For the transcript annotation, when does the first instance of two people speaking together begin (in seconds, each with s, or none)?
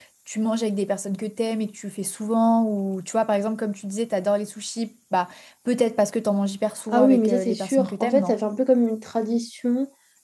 6.9 s